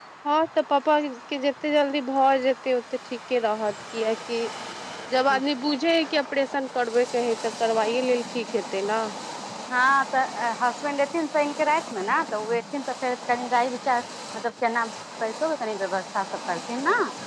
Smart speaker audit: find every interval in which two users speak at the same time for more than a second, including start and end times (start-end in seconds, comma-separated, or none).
none